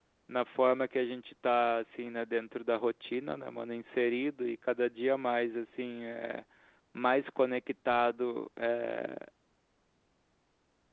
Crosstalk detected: No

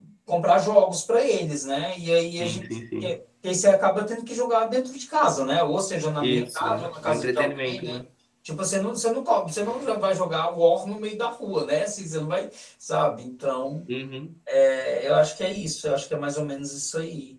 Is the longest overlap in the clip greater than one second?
Yes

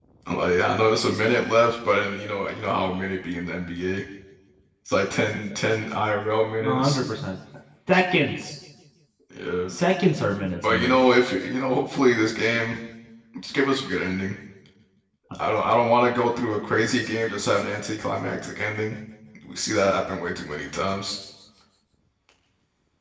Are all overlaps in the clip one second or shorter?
Yes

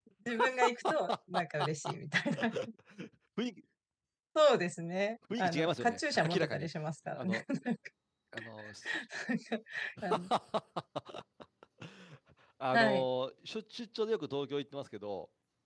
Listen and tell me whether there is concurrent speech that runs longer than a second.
Yes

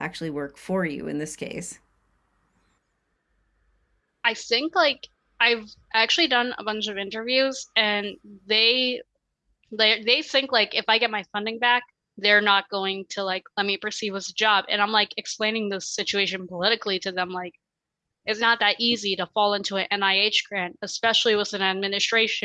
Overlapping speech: No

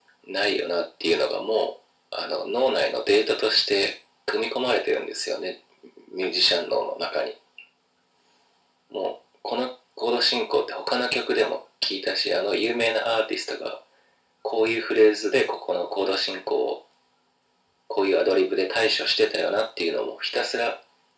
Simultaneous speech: No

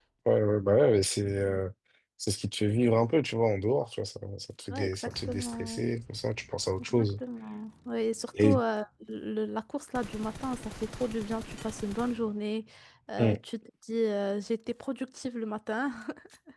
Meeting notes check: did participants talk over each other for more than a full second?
Yes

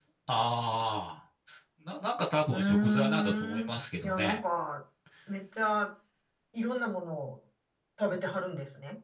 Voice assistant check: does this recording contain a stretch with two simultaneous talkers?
Yes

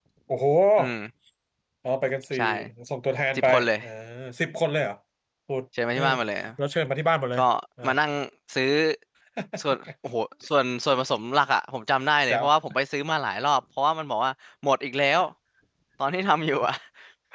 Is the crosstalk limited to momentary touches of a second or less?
Yes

